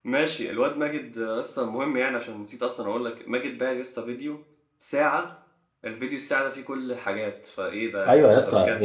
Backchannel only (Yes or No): No